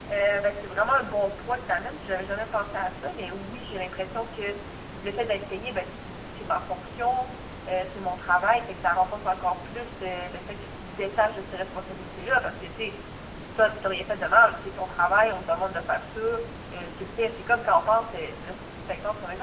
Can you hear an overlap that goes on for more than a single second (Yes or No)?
No